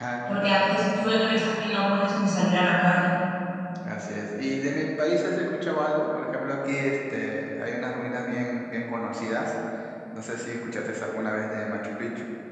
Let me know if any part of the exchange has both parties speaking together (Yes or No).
No